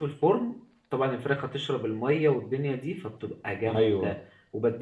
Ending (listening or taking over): listening